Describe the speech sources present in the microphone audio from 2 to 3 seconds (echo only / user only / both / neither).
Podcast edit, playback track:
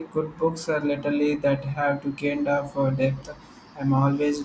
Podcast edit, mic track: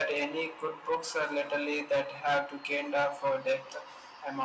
echo only